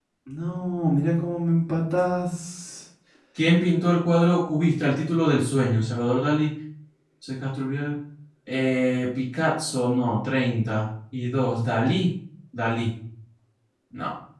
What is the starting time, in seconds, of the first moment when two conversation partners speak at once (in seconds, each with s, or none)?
none